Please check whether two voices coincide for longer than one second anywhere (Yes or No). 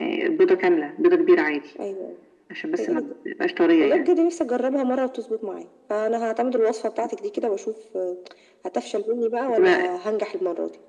No